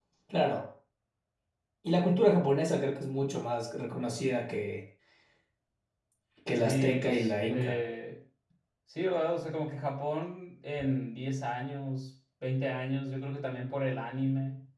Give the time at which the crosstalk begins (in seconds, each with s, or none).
6.5 s